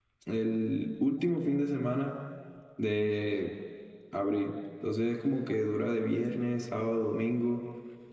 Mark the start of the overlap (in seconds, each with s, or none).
none